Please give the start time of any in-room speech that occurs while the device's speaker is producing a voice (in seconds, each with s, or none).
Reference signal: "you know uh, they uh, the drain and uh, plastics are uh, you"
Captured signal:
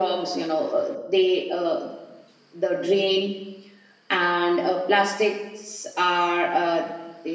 none